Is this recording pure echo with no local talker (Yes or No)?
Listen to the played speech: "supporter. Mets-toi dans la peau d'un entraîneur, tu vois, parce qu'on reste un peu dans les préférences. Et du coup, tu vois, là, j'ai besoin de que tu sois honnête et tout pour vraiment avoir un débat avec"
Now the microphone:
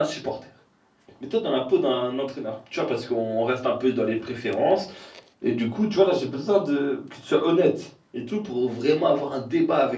Yes